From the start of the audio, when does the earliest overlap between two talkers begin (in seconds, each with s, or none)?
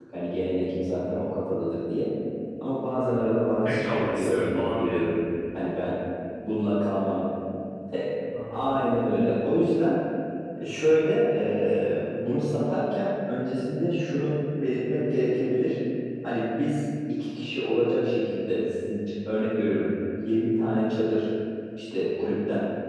2.9 s